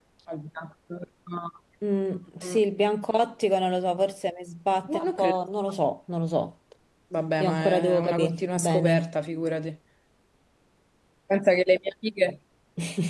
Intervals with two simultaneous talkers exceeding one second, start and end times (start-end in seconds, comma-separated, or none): 7.4-9.1